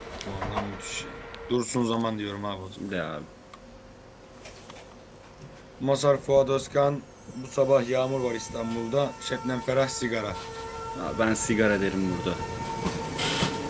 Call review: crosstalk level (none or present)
none